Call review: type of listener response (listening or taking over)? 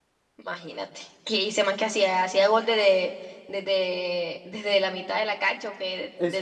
taking over